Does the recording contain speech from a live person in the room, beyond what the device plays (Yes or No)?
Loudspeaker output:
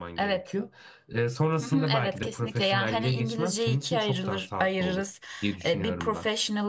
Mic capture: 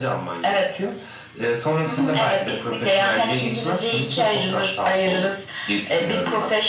No